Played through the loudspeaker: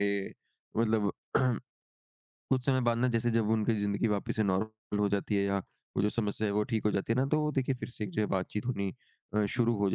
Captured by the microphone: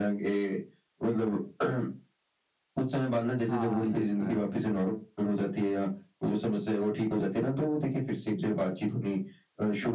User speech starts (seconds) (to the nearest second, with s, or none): 3 s